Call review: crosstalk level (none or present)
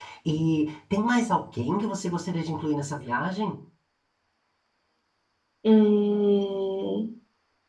none